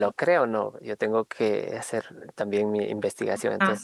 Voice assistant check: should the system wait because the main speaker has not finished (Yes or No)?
Yes